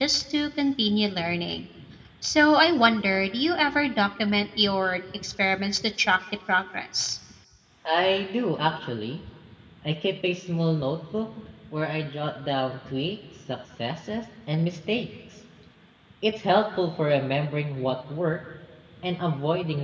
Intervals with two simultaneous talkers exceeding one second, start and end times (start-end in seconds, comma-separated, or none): none